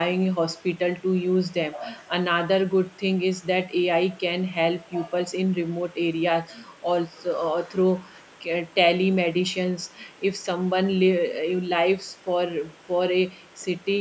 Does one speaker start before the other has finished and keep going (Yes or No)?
No